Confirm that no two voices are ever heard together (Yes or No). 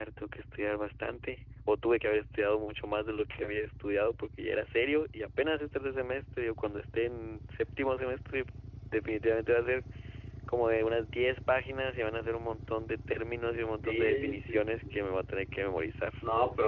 No